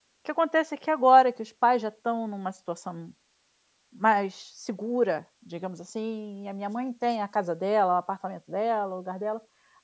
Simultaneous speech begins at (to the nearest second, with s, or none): none